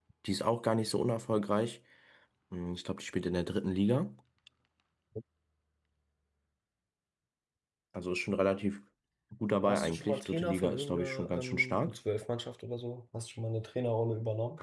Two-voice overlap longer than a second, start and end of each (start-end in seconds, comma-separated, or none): 9.6-12.0